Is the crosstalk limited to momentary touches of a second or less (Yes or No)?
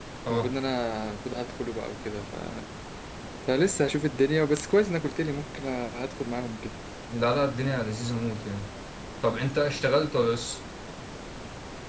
Yes